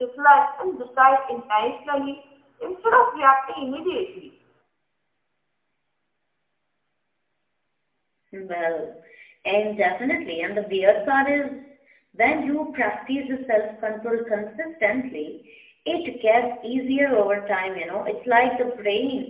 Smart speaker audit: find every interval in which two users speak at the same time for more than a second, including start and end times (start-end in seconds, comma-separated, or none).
none